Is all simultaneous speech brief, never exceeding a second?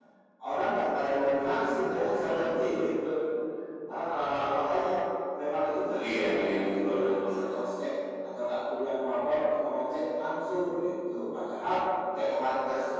No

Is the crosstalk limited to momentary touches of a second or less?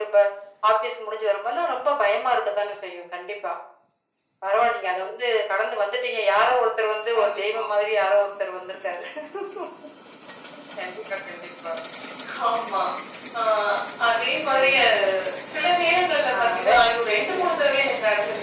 Yes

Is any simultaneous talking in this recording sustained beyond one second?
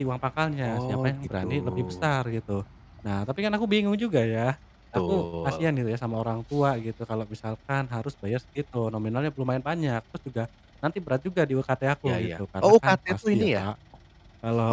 Yes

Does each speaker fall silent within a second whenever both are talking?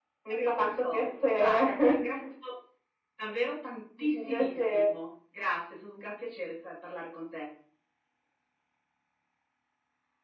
No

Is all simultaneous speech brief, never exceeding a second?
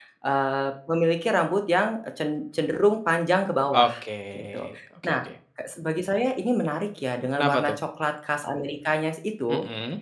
Yes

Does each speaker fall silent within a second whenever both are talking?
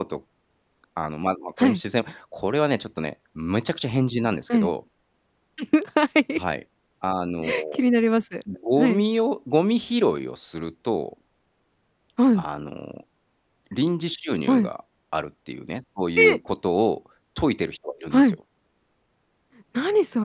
Yes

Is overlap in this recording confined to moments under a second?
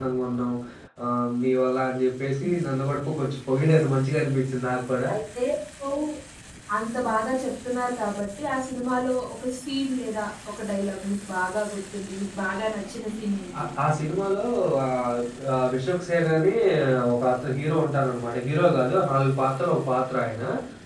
Yes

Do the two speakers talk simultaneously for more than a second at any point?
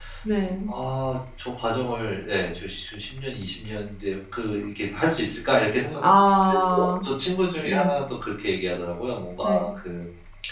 No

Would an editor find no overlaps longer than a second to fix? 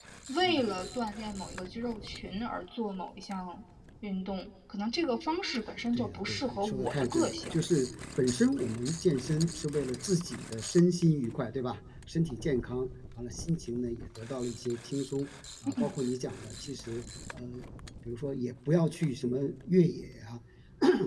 No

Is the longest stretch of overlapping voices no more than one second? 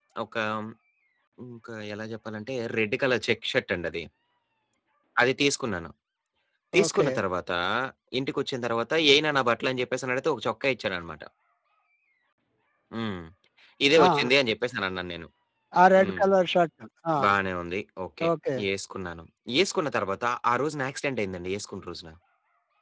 Yes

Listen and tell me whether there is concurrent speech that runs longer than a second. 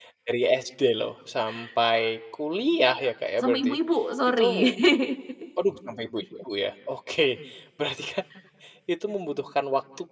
No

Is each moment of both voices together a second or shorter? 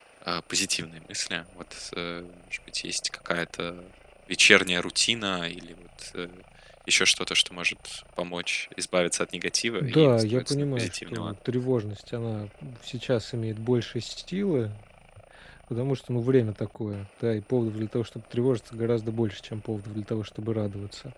No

